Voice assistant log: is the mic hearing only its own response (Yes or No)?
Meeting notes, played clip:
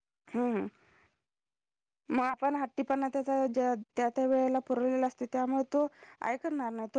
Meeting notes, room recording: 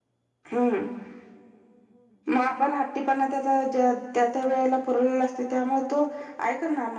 Yes